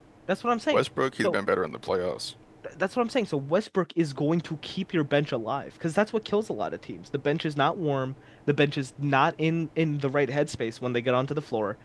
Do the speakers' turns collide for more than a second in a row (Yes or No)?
No